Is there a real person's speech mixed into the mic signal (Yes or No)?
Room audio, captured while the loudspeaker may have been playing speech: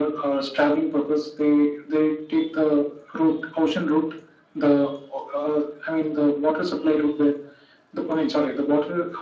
No